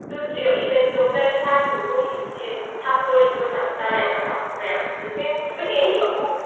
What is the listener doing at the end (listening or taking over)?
taking over